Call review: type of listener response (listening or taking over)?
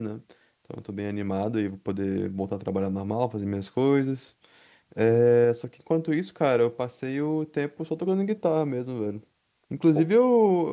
listening